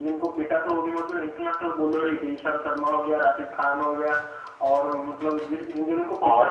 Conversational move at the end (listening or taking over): listening